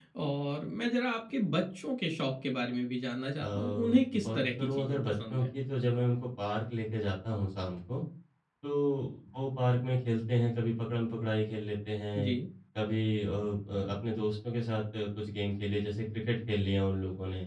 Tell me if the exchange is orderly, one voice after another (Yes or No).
No